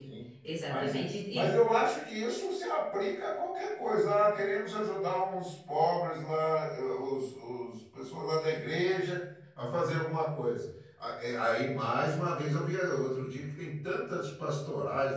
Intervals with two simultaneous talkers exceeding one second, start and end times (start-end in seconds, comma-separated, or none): none